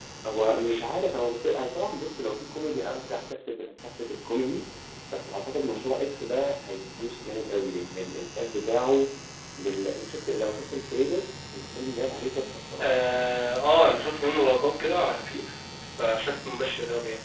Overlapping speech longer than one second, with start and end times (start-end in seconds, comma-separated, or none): none